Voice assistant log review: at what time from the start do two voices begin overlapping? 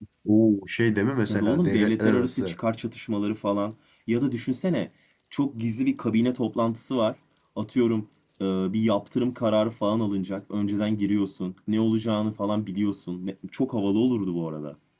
1 s

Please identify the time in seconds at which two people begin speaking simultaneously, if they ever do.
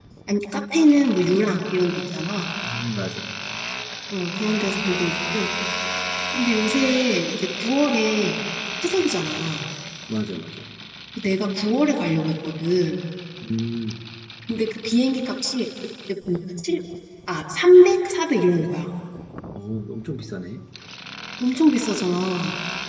none

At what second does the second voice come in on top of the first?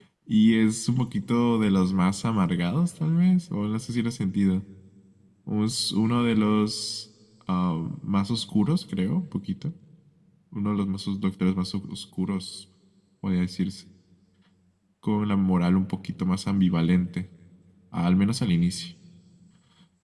none

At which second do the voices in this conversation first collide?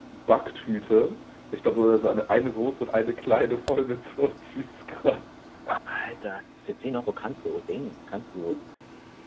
none

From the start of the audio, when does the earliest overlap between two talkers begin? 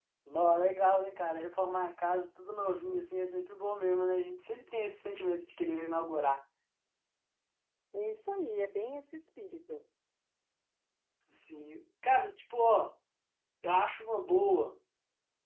none

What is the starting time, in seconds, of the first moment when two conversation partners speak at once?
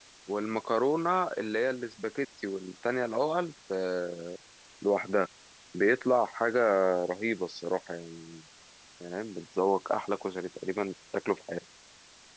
none

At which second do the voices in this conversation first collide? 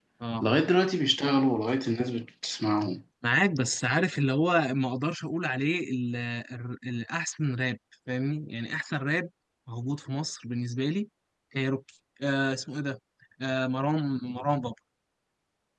none

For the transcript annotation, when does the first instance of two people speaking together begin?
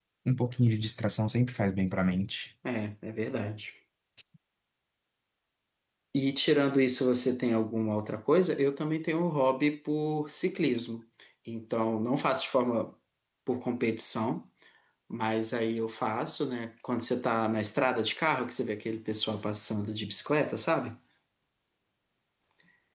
none

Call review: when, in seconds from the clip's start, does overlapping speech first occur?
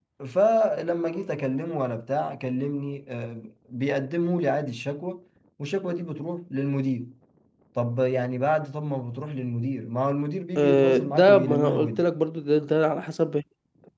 11 s

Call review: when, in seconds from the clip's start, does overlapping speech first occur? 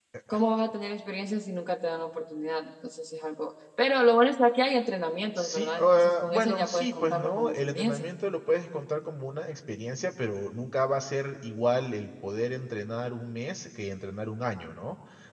5 s

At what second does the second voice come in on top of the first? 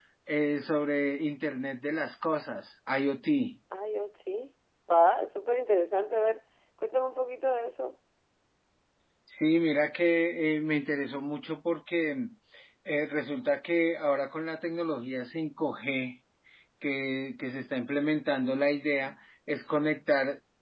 none

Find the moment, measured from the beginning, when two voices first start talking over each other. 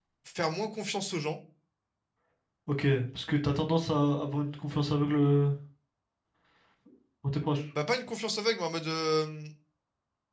none

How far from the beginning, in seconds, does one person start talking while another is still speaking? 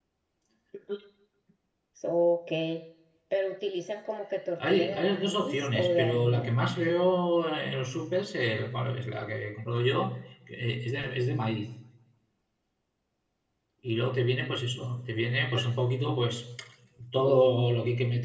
5 s

